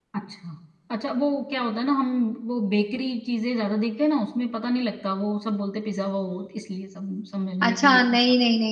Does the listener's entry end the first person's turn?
Yes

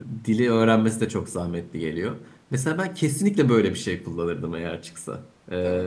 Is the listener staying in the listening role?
Yes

